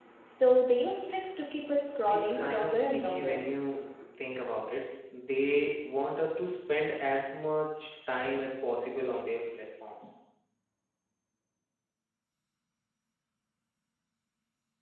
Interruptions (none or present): present